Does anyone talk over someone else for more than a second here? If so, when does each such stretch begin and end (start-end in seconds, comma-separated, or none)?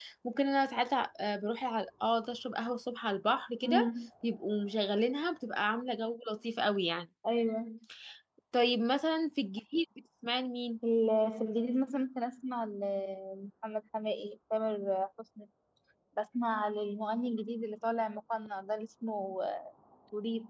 none